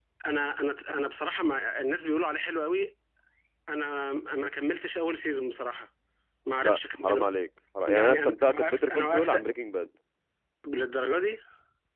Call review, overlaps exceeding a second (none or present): present